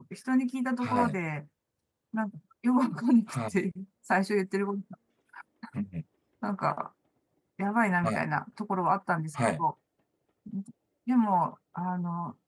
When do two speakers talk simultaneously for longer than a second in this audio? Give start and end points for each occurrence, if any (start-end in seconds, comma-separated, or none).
none